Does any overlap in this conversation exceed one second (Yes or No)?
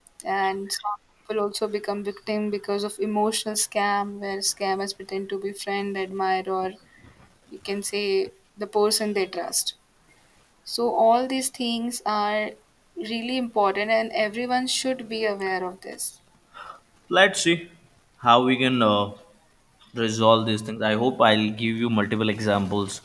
No